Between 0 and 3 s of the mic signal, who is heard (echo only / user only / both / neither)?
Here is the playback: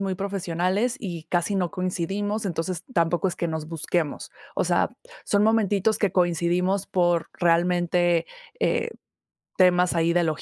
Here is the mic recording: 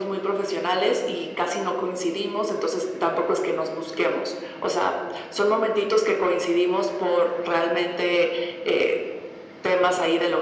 echo only